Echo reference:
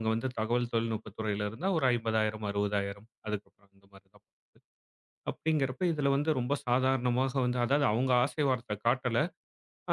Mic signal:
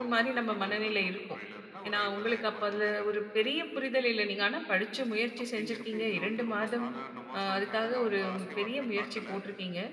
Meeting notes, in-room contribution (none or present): present